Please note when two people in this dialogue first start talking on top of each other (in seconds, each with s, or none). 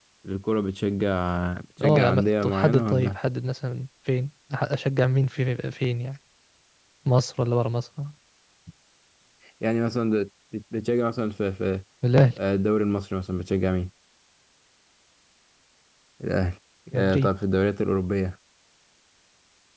1.8 s